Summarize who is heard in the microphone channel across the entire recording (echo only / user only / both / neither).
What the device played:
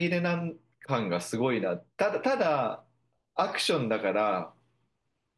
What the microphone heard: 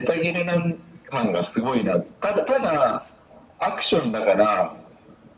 echo only